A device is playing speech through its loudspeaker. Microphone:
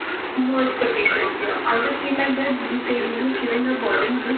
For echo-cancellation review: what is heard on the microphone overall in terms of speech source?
echo only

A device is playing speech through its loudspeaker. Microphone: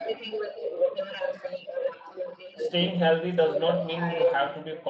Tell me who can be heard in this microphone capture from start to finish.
both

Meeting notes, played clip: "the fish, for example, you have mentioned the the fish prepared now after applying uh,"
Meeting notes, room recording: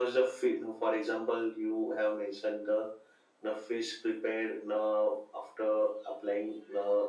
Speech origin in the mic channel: echo only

